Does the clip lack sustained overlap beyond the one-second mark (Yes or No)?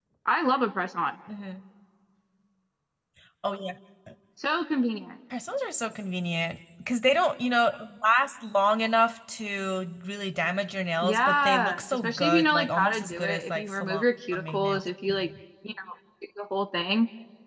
No